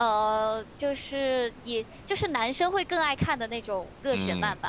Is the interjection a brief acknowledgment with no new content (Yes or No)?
No